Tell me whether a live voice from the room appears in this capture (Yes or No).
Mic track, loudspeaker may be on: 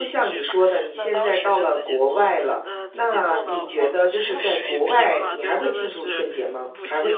Yes